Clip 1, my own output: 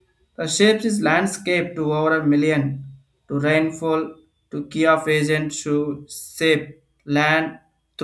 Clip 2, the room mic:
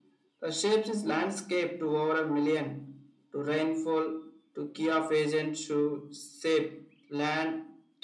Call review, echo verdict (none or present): present